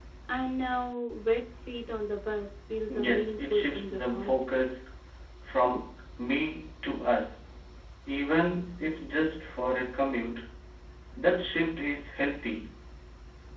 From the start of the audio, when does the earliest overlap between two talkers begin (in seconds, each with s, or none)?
2.9 s